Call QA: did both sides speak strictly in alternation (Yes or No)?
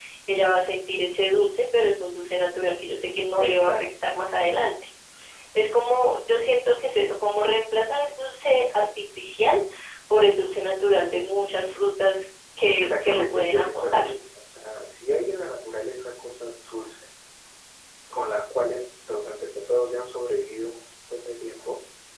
No